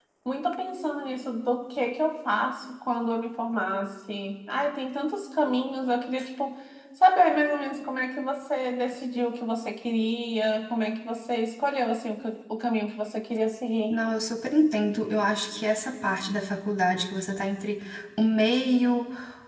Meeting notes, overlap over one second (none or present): none